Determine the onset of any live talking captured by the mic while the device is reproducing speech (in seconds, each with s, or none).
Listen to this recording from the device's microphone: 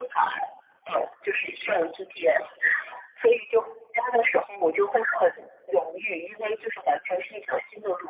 none